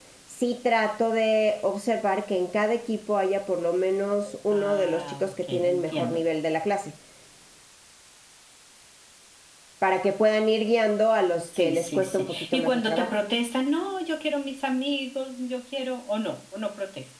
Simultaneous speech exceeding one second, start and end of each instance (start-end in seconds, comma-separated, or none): 4.5-6.2, 11.4-13.1